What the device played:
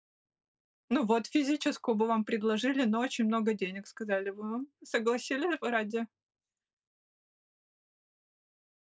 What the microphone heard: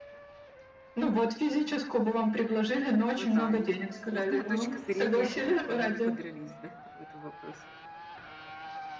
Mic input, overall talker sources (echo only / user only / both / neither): both